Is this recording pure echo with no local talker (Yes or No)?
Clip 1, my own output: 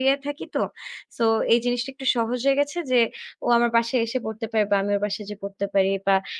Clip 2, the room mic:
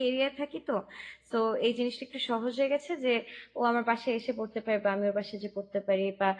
Yes